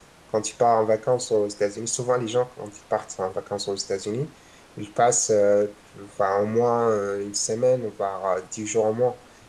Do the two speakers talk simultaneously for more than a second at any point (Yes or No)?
No